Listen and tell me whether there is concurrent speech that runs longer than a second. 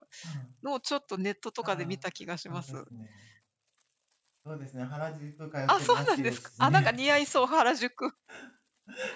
Yes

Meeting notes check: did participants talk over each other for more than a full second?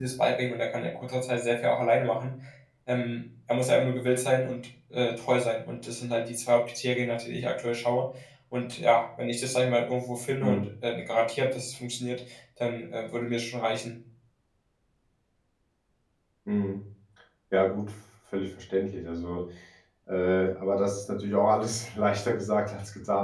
No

